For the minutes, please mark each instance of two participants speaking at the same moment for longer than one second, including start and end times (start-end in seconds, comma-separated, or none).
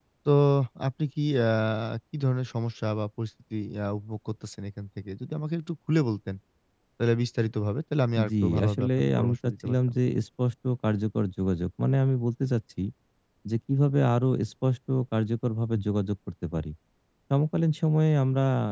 8.3-9.9